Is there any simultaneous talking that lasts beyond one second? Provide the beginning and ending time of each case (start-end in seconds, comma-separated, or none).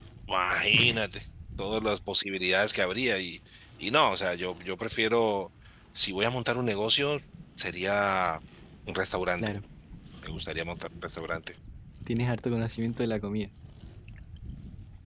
none